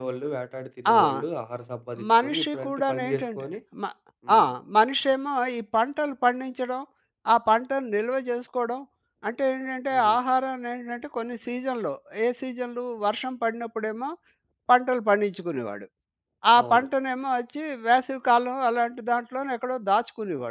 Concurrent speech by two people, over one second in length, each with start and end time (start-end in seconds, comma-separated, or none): 2.2-3.4